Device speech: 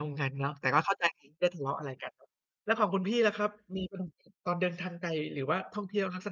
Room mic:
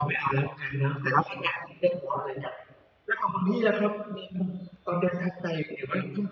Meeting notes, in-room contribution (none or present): none